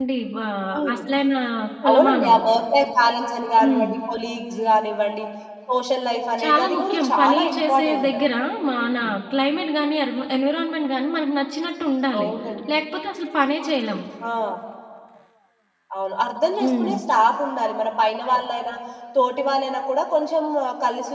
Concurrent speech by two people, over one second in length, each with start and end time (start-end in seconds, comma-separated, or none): 6.4-8.2